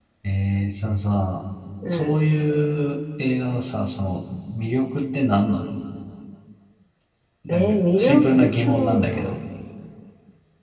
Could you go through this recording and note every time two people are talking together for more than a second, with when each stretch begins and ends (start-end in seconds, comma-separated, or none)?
7.5-9.4